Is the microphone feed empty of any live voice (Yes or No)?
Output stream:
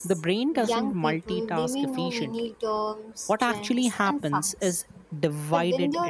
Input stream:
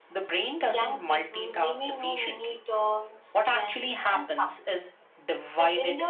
Yes